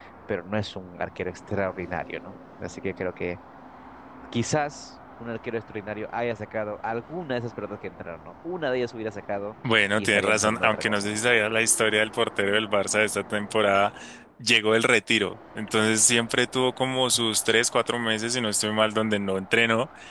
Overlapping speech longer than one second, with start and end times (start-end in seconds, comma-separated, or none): 10.0-11.2